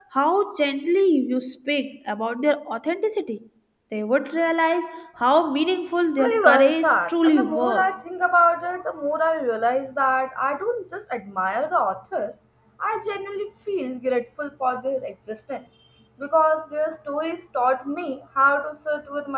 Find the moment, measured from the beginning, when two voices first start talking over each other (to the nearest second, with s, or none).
6 s